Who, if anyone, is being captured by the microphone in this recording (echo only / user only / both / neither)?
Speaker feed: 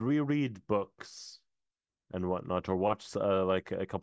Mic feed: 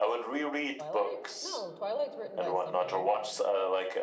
both